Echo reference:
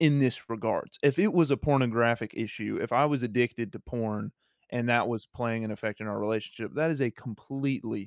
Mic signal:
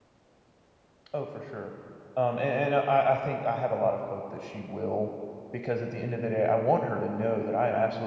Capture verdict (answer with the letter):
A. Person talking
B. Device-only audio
A